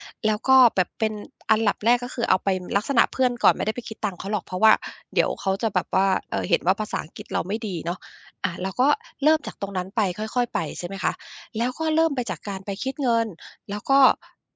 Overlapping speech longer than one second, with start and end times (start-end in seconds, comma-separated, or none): none